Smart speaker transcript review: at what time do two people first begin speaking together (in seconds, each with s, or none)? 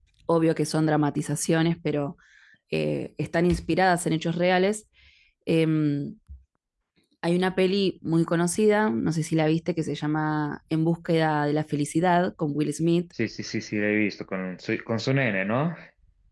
none